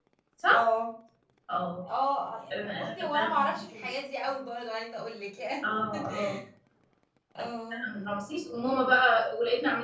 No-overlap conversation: No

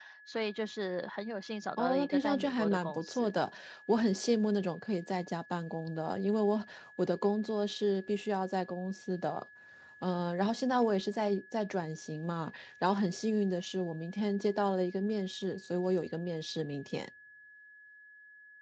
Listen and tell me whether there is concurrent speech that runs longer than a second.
Yes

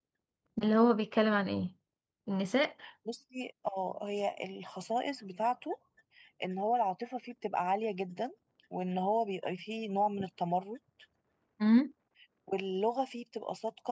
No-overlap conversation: Yes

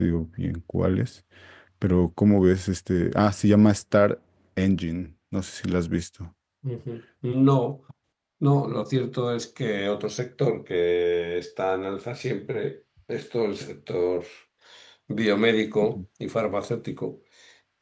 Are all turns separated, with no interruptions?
Yes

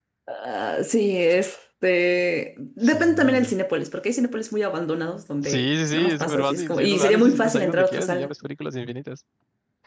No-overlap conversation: No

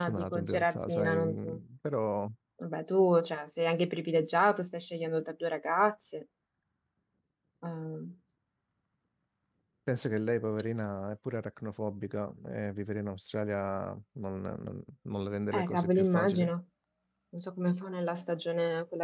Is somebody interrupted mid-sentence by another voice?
Yes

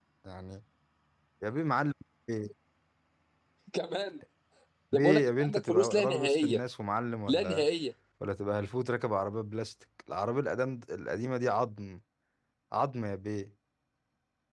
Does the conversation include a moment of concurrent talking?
Yes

